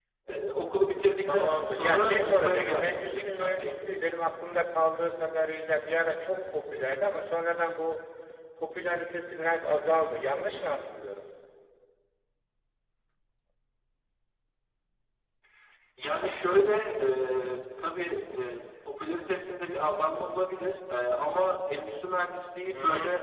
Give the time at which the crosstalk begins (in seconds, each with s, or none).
1.2 s